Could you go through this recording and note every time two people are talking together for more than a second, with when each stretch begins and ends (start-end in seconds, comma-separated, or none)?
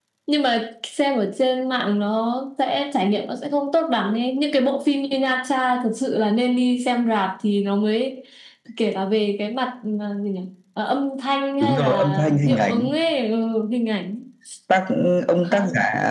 11.6-12.9